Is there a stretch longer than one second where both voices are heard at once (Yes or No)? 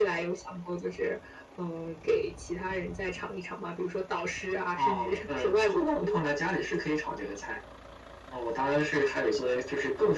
Yes